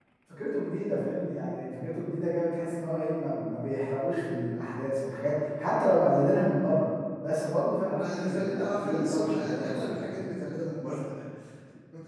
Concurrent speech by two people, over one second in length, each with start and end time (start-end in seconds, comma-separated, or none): 7.9-10.3